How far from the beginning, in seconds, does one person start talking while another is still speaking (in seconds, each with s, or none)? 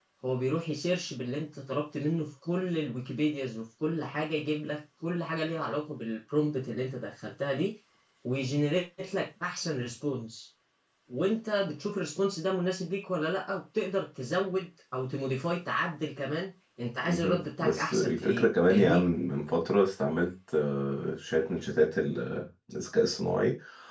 17.1 s